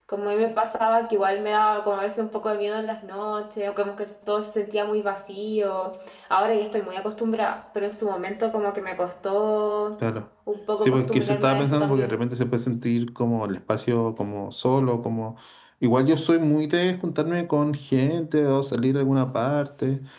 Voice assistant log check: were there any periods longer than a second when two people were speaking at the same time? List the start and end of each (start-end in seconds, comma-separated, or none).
10.8-12.2